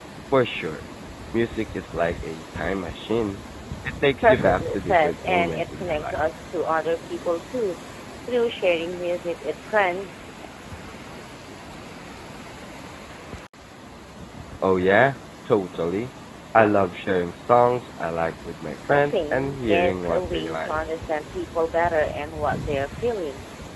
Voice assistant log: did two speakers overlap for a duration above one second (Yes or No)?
Yes